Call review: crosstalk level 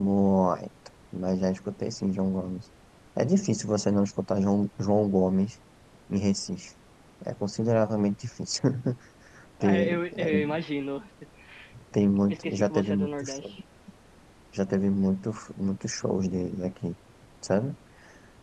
present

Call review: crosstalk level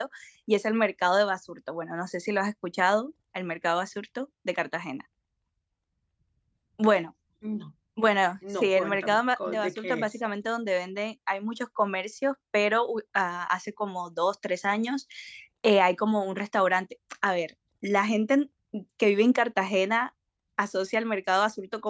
present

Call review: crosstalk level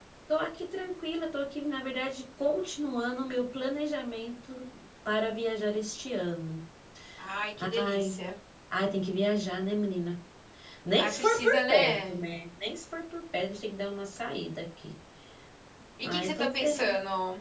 present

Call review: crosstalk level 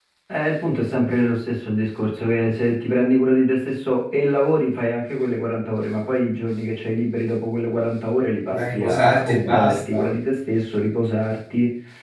present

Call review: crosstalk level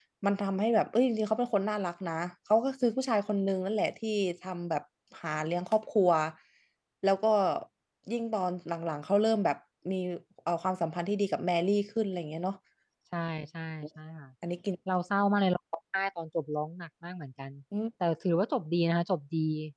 none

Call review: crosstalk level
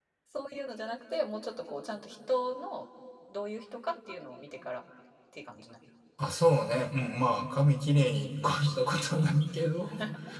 none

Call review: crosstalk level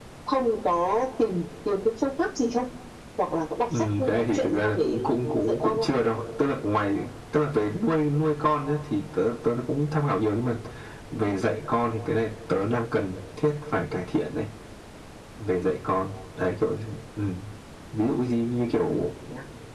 present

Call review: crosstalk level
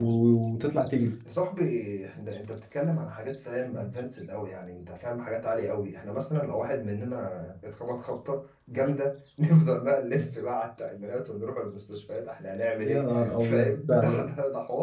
present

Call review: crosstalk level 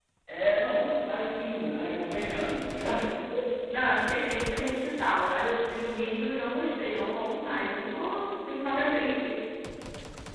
none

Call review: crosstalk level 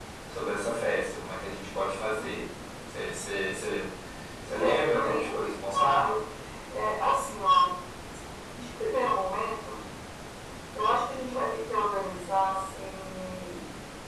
present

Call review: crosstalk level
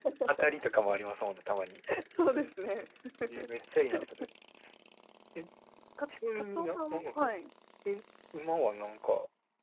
present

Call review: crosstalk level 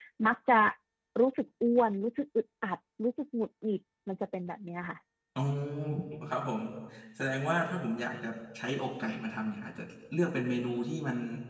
none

